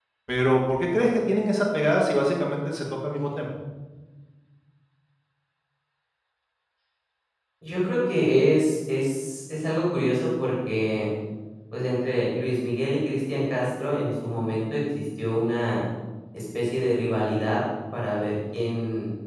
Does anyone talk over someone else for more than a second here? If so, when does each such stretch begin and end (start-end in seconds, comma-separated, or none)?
none